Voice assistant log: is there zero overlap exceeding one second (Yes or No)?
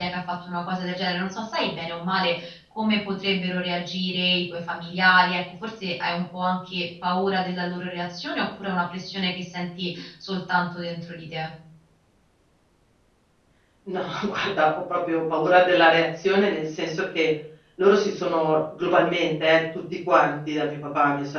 Yes